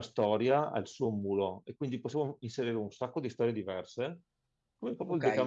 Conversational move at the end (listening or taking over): taking over